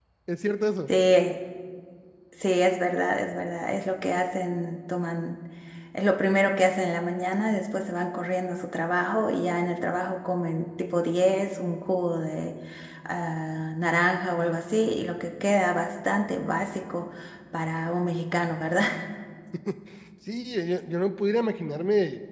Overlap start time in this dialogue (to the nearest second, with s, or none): none